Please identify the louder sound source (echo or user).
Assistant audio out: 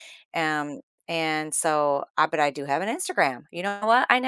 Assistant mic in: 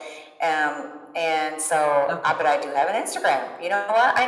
echo